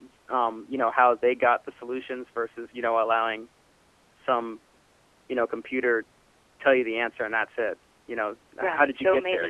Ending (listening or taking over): taking over